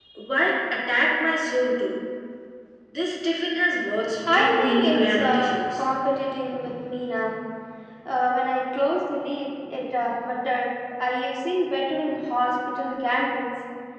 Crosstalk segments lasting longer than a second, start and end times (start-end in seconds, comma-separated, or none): 4.3-5.6